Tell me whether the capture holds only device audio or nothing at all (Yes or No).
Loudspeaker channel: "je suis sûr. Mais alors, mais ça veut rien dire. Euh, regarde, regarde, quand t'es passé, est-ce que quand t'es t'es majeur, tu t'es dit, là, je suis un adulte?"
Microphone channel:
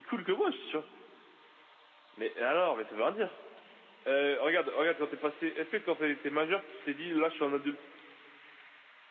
Yes